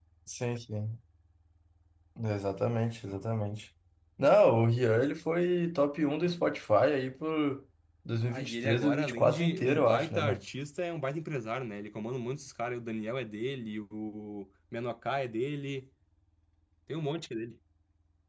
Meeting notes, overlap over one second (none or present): present